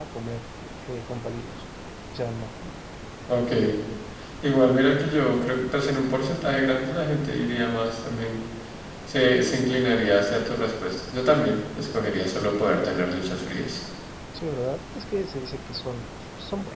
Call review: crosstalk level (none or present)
none